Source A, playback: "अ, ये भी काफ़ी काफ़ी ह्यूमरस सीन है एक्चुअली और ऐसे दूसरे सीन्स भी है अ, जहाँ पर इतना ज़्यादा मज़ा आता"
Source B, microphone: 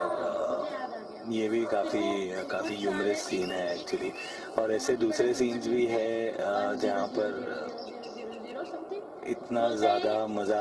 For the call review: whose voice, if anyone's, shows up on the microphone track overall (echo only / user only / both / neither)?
both